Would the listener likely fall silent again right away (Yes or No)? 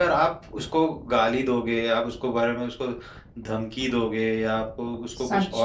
Yes